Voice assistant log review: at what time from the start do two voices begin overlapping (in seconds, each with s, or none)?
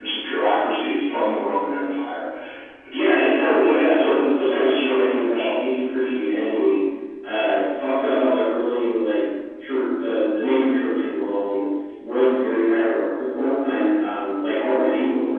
2.9 s